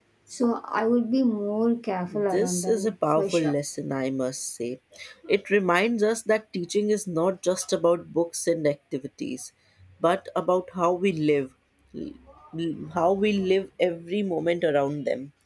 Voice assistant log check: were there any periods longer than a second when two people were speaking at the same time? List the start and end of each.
2.1-3.5

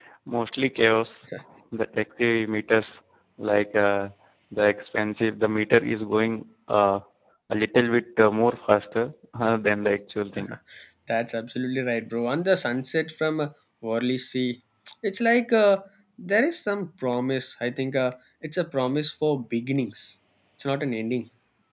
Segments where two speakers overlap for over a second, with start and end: none

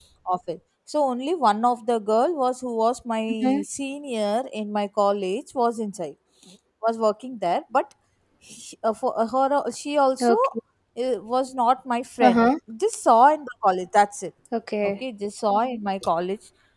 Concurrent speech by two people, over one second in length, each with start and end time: none

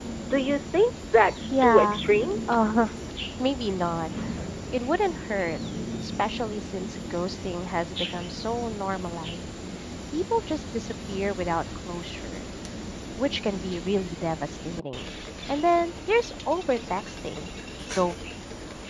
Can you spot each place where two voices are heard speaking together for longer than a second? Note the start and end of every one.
none

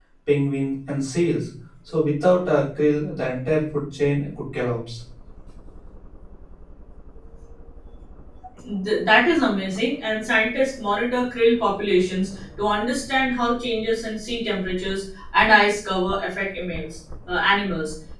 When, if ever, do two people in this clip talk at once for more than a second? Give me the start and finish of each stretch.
none

